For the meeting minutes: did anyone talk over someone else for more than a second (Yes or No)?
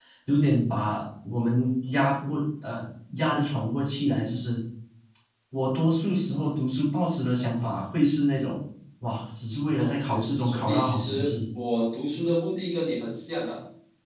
Yes